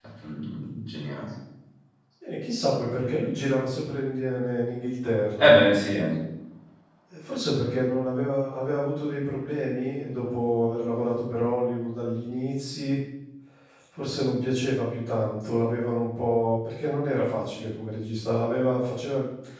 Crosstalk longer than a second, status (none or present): none